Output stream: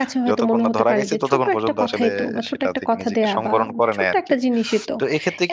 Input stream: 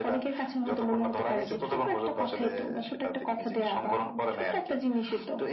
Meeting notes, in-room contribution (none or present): none